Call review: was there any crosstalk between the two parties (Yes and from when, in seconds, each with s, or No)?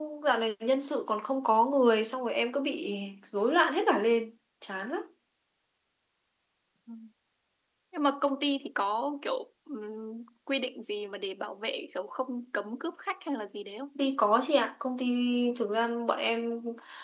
No